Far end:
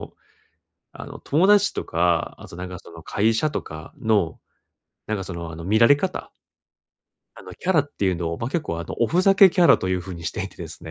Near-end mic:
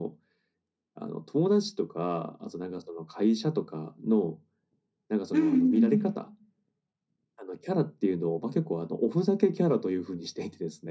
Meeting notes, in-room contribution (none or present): present